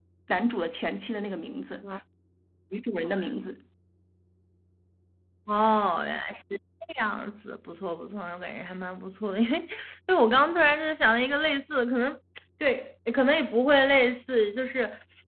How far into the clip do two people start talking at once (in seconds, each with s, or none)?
none